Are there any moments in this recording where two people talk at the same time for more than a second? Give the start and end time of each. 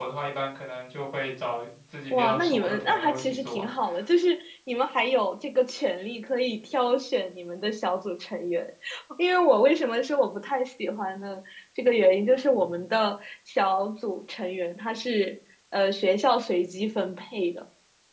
2.1-3.6

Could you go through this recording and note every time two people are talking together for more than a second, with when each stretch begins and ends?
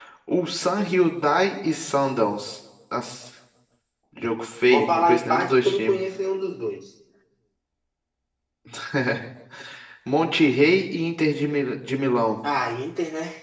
4.7-5.9

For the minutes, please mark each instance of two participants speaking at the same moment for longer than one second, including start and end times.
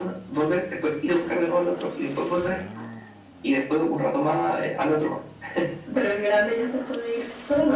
none

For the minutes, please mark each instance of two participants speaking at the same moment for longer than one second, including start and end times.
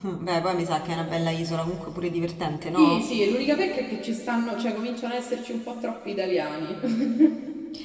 none

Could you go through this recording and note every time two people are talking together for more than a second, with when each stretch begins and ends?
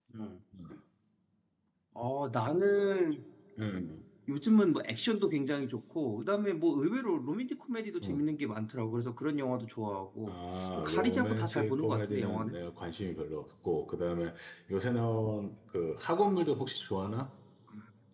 10.8-12.6

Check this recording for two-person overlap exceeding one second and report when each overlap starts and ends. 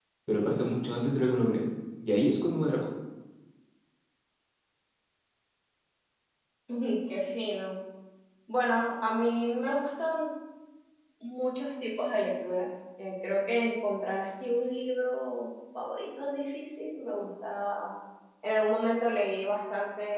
none

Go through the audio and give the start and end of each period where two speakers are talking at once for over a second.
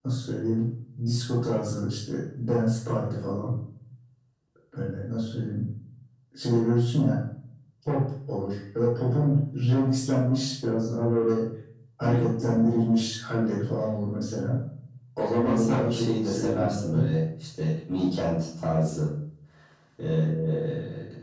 15.4-17.1

